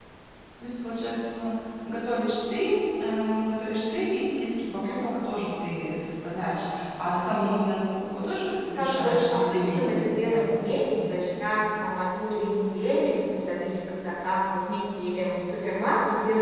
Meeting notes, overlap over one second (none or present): present